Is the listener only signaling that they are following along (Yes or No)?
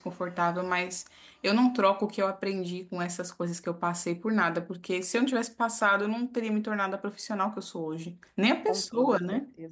No